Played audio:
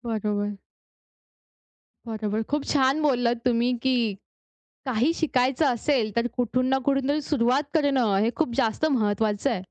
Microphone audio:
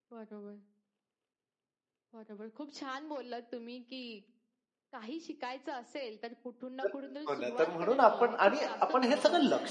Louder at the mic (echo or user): user